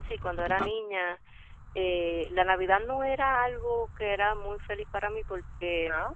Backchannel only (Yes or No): Yes